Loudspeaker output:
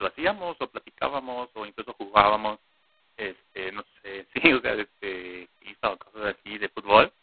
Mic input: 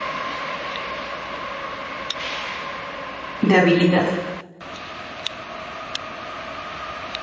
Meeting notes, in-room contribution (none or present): present